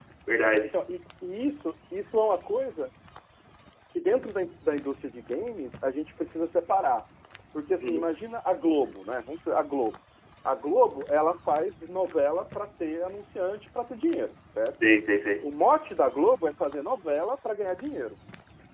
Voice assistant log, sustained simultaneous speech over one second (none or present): none